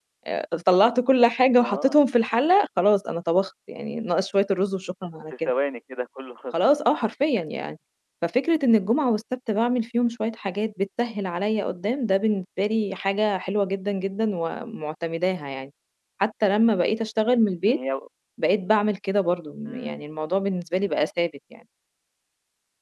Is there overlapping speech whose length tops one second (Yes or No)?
No